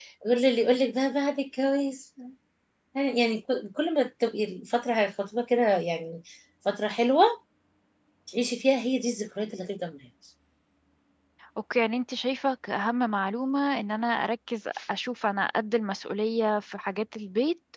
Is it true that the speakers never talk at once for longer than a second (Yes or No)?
Yes